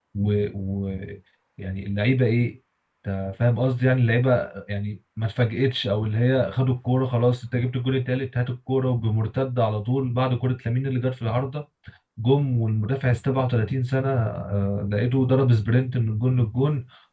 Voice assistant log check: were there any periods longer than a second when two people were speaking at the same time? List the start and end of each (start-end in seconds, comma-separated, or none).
none